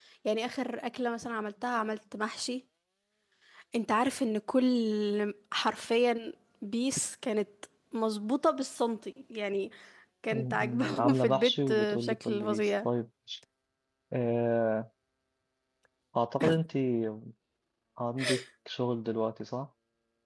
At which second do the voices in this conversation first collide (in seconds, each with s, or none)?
10.3 s